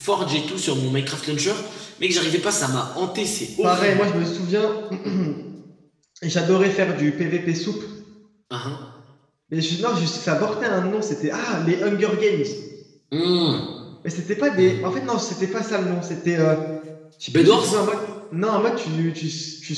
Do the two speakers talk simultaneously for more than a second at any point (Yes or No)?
No